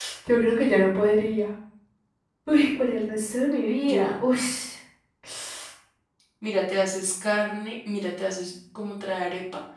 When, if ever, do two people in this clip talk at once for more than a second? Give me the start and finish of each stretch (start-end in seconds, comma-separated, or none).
none